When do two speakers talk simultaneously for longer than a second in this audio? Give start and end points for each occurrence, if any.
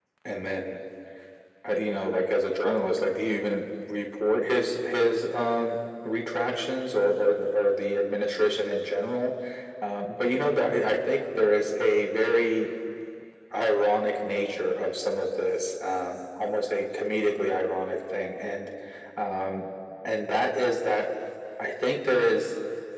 none

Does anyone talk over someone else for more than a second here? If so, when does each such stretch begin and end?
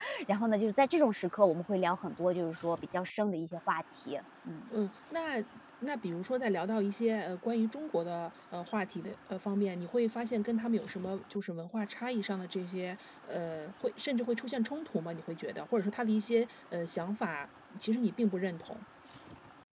none

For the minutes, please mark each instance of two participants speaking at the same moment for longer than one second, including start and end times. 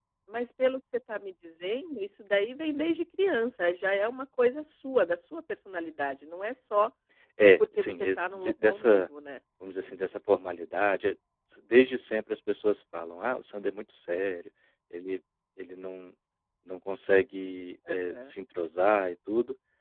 7.6-9.1

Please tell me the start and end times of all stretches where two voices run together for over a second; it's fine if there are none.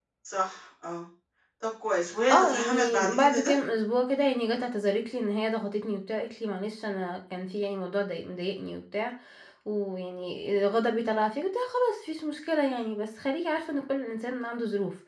2.3-3.5

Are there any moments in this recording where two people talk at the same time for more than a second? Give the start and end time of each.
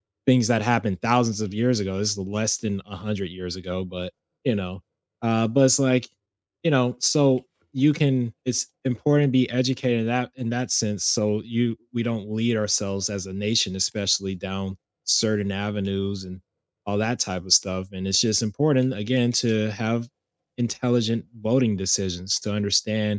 none

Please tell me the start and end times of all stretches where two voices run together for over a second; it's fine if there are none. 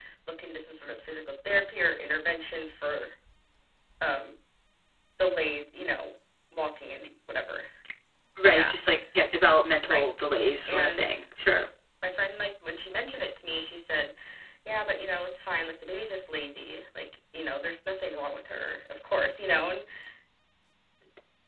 none

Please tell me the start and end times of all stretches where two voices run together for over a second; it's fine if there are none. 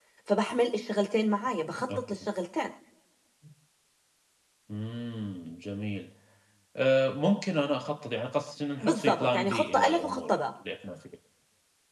8.8-10.3

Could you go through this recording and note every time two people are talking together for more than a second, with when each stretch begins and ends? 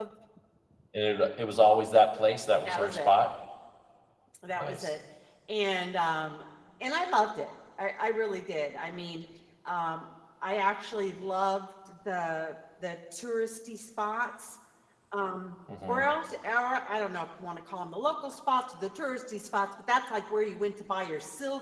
none

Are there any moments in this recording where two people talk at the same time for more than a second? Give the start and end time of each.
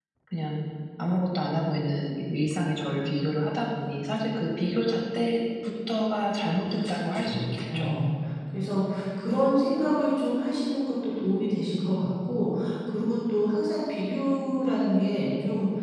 6.7-8.0

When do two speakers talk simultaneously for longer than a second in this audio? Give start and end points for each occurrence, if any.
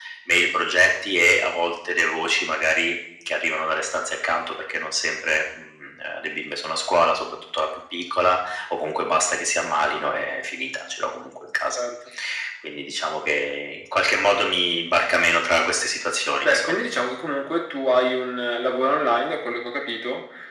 none

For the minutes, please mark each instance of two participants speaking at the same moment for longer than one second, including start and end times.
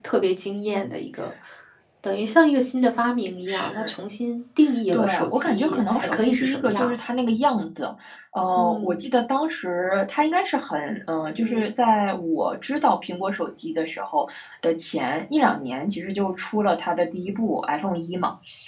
4.9-6.9

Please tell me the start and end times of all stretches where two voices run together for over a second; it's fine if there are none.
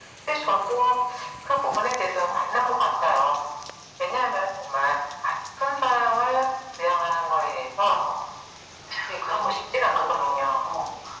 9.3-10.7

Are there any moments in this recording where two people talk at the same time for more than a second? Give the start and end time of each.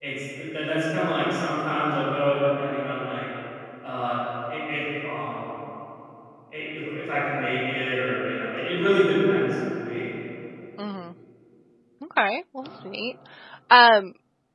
none

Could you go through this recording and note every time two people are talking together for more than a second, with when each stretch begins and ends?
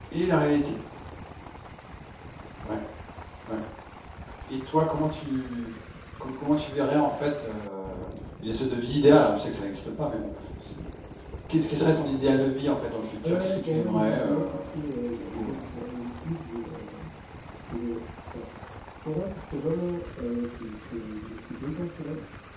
13.2-14.6

